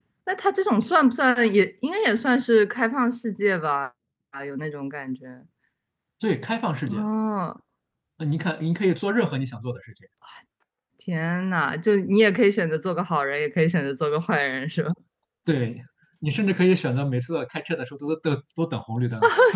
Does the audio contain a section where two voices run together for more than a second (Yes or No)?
No